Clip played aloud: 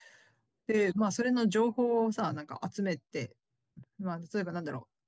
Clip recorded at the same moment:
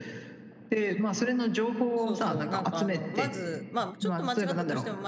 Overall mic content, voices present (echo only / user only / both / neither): both